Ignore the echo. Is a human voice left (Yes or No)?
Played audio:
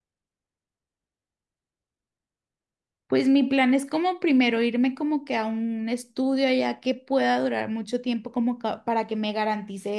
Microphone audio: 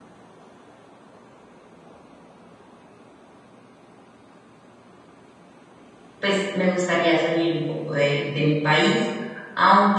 Yes